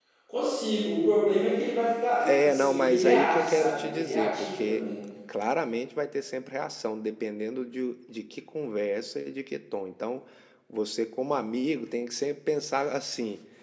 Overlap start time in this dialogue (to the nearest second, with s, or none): 2 s